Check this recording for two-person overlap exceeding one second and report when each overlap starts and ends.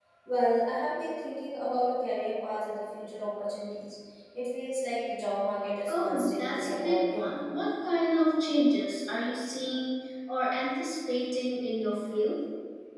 5.9-7.3

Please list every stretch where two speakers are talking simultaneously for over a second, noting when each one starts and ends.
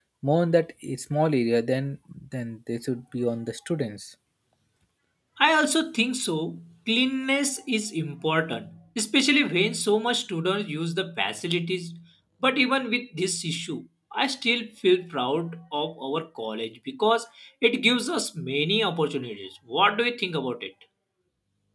none

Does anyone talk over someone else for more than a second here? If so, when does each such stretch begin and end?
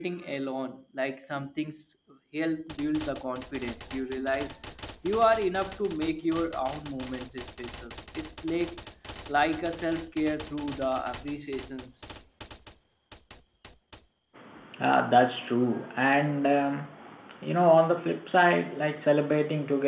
none

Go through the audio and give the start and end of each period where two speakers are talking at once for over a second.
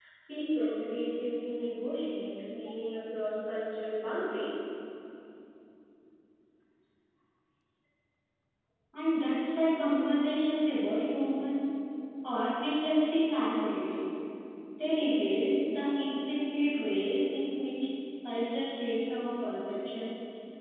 none

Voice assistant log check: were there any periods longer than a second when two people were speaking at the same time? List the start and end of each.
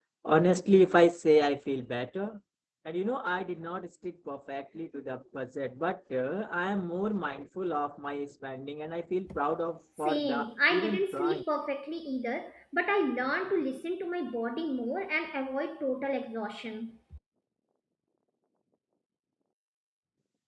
10.0-11.4

